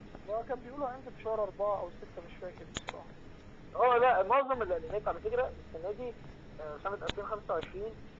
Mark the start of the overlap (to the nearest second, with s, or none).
none